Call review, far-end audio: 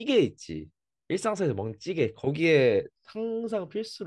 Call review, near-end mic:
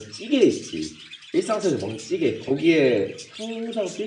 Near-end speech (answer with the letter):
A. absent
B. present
A